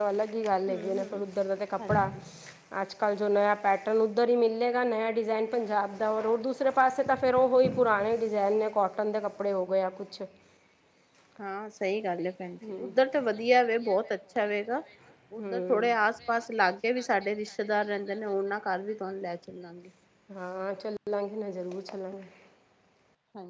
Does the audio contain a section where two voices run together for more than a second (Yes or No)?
No